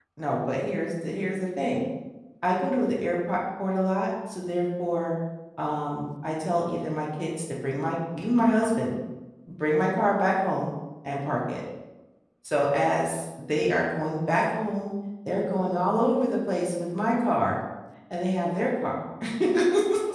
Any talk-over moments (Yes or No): No